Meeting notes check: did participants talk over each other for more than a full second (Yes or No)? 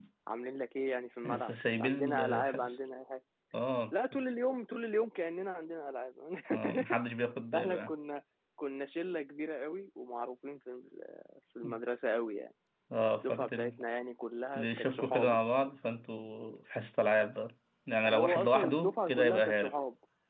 Yes